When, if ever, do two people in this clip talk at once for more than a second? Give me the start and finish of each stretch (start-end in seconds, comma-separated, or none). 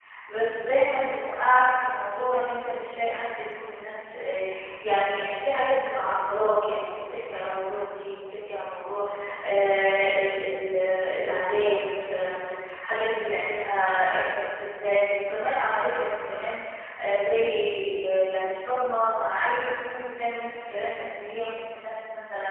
none